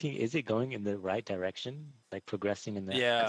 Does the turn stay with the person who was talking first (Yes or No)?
No